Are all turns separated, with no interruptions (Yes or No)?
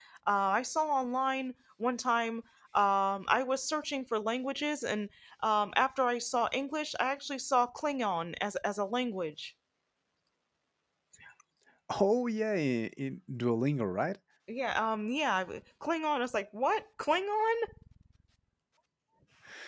Yes